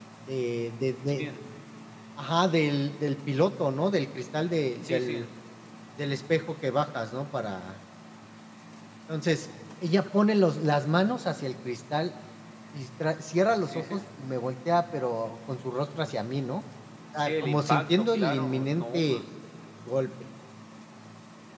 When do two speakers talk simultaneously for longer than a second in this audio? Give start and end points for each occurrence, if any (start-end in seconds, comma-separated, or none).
17.2-19.2